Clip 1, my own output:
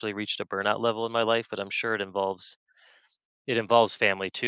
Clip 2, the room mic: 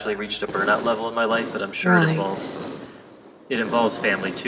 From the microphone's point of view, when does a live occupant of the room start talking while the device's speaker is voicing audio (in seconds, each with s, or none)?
1.8 s